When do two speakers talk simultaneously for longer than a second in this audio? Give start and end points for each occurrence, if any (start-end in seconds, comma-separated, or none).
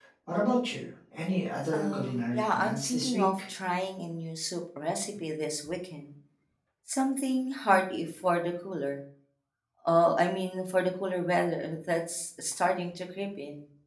1.7-3.4